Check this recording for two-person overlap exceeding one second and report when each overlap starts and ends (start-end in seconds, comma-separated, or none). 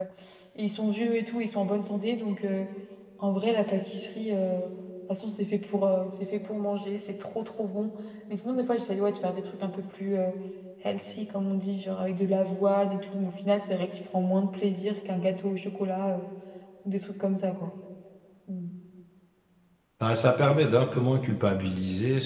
none